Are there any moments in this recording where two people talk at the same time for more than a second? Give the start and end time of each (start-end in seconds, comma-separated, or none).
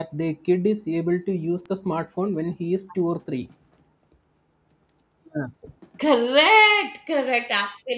none